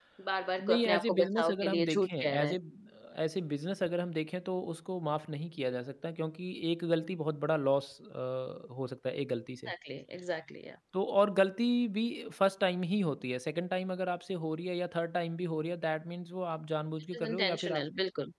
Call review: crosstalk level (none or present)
present